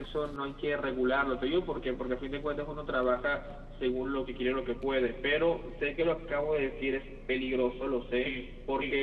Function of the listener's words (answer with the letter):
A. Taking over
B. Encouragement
B